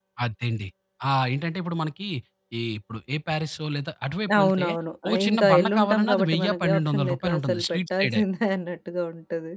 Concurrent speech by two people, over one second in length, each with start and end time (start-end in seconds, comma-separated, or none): 5.1-8.1